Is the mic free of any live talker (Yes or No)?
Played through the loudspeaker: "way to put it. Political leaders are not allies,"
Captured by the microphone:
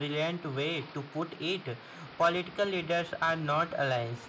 Yes